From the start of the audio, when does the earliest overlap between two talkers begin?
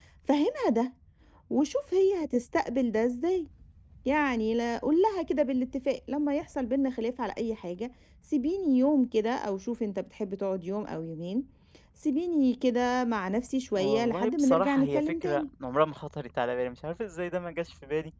13.7 s

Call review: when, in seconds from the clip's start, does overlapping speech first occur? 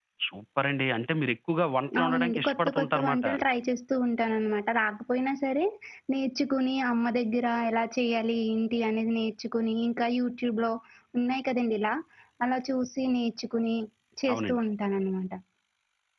2.0 s

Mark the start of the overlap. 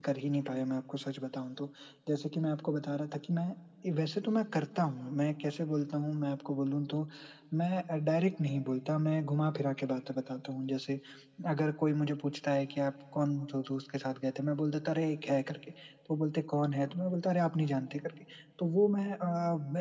none

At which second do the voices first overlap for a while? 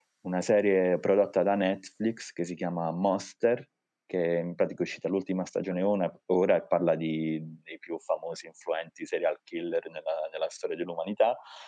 none

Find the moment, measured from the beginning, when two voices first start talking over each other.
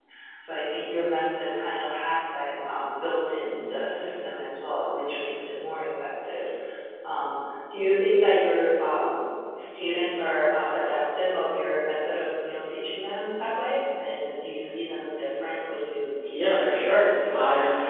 16.3 s

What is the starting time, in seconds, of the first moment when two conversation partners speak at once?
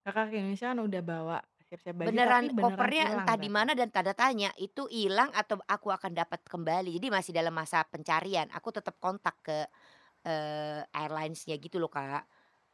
2.0 s

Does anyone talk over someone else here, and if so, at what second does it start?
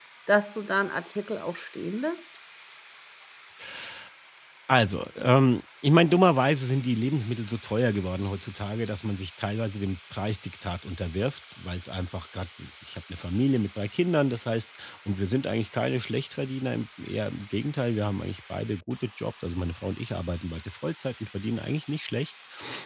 none

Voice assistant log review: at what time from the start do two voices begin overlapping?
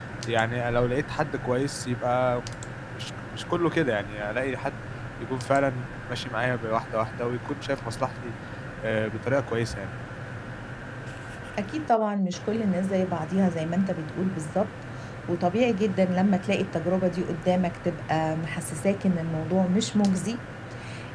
none

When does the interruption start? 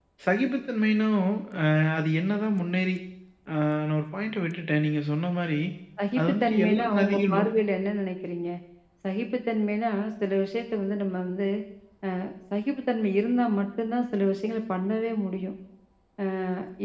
6.2 s

